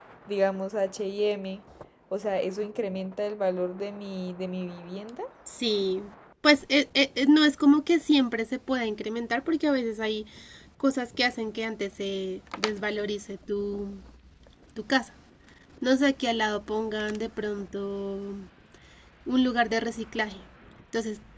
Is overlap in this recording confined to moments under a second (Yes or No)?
Yes